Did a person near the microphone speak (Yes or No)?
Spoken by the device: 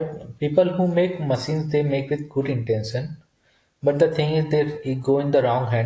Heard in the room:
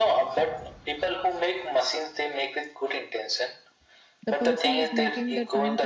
Yes